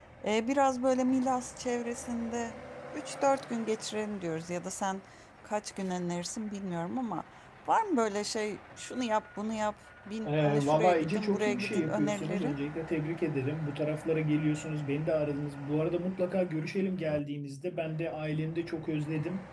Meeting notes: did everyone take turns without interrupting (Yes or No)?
No